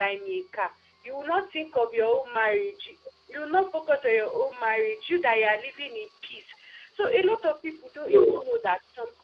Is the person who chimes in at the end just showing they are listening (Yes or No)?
Yes